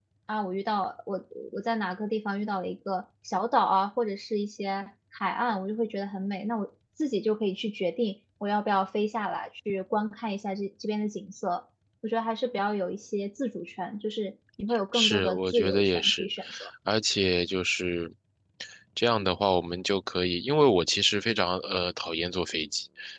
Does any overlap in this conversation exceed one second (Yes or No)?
Yes